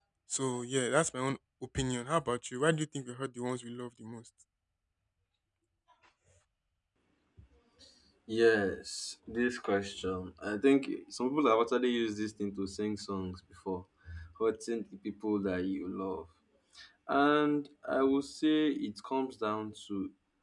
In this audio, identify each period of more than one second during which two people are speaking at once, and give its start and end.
none

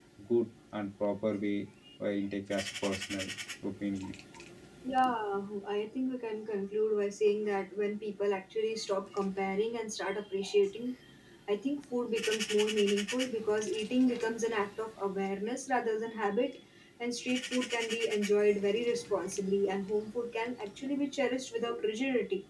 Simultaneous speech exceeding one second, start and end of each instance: none

